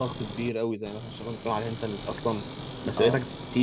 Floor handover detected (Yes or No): No